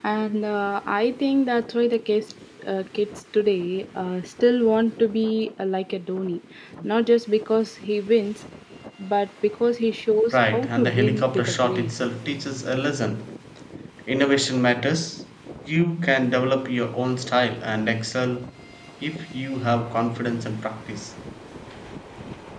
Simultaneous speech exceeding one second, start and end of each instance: 10.3-11.9

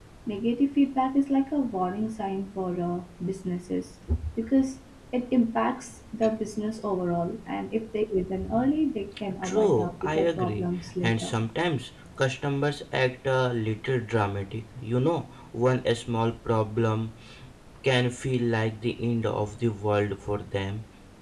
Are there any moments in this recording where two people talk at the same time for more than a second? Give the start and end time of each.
9.4-11.3

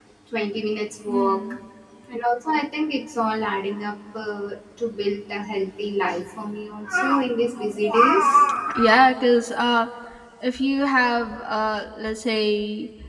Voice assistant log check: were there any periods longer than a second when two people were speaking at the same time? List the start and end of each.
none

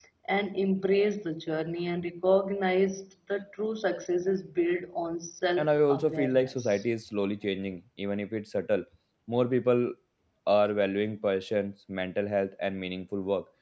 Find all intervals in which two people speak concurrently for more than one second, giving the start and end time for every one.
5.6-6.8

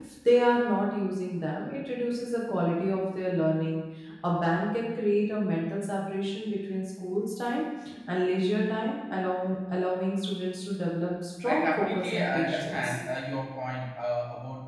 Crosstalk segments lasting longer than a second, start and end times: 11.5-13.0

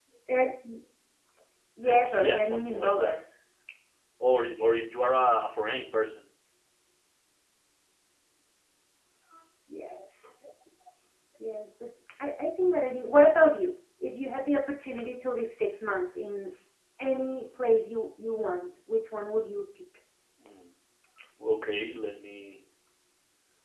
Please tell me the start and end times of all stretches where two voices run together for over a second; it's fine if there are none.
1.8-3.2

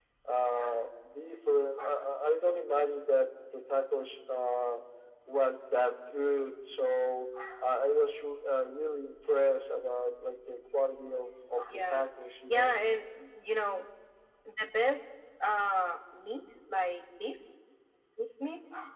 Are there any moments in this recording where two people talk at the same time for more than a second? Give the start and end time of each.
none

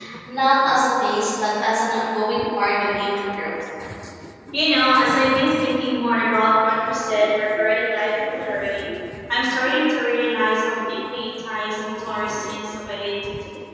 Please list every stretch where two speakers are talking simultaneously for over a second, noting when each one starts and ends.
none

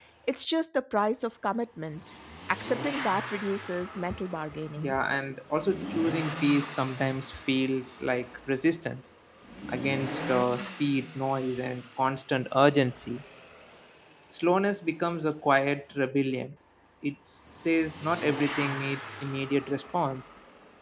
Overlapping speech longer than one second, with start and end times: none

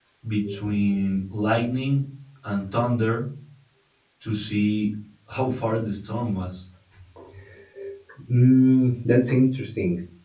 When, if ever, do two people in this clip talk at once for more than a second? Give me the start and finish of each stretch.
none

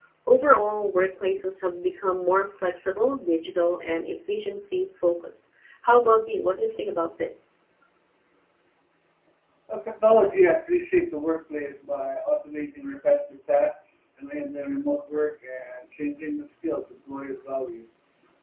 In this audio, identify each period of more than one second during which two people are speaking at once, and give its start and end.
none

